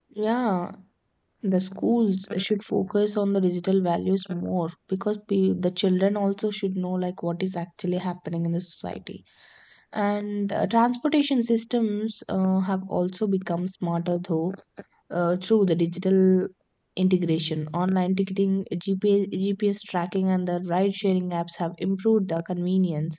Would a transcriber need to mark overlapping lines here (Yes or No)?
No